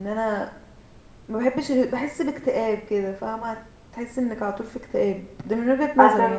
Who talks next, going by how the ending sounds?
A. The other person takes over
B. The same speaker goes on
A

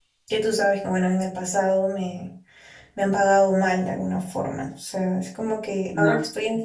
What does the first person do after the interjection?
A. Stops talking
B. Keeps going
B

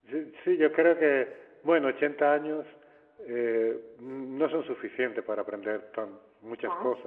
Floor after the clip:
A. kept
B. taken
A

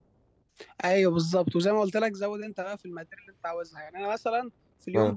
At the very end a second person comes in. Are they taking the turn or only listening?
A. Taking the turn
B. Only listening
B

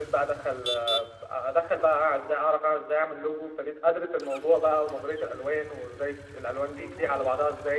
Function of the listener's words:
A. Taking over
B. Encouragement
B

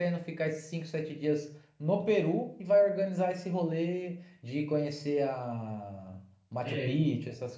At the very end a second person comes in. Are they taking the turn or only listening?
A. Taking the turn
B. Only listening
A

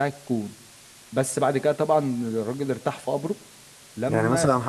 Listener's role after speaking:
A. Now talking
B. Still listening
A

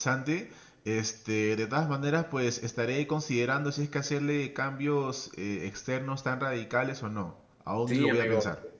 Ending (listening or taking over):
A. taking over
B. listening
A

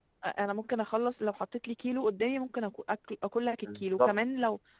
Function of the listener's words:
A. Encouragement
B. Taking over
A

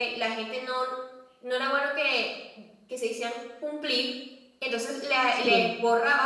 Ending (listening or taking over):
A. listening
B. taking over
A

